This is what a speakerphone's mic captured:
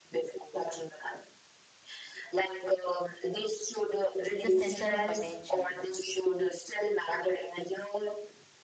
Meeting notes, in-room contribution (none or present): present